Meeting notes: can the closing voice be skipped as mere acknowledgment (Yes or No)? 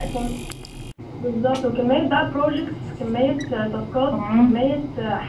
Yes